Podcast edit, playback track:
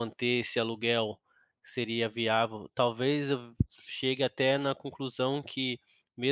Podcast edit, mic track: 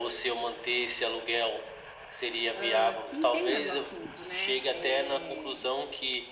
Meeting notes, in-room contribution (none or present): present